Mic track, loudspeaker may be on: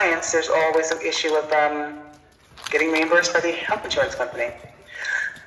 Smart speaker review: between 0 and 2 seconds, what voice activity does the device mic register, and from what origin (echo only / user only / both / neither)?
echo only